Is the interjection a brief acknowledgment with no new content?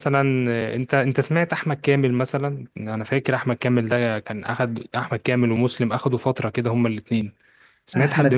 No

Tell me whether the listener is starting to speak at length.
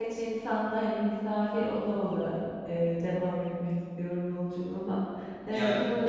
Yes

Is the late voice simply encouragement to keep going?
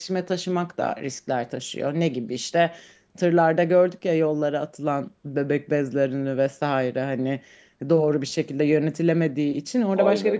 No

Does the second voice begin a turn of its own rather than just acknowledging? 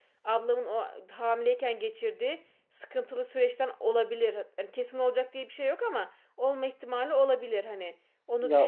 Yes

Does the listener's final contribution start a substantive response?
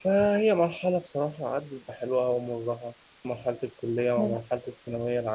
No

